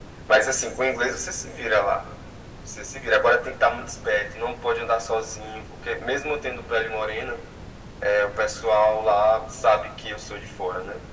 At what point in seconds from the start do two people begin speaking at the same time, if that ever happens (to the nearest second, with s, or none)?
none